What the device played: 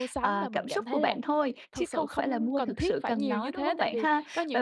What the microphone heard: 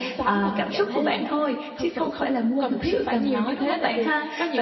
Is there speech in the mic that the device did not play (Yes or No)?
No